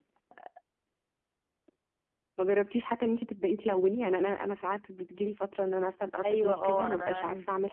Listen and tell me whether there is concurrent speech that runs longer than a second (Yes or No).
Yes